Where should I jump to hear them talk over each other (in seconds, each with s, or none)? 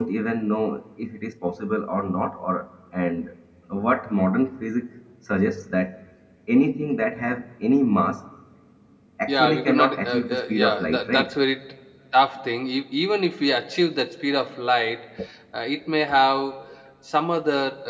9.3 s